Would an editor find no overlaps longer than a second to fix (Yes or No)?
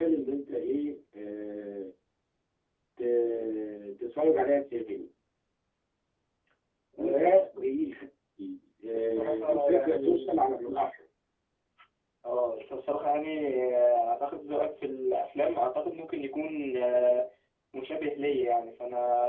No